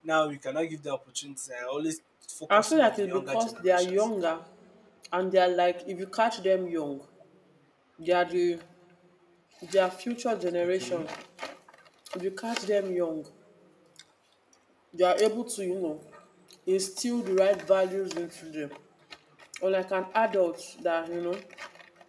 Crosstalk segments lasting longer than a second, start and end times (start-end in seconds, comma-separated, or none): 2.6-3.9